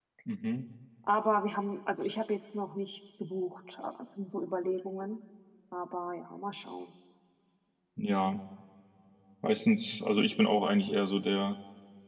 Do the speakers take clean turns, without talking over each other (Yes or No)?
Yes